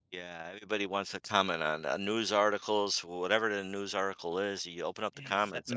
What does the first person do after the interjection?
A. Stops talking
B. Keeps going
A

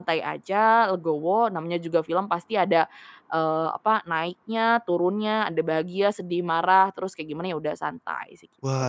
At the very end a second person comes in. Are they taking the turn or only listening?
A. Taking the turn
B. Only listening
A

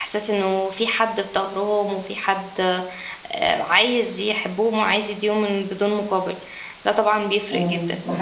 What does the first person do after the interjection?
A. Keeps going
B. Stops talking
B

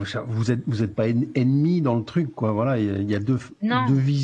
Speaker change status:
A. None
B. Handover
A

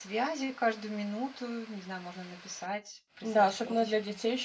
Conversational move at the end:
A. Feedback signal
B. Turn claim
B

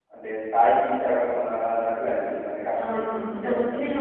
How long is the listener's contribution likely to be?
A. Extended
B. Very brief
A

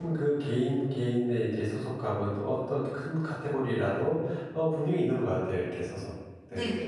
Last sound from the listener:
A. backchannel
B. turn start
B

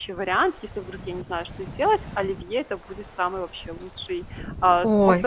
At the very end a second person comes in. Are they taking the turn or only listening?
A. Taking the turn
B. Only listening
B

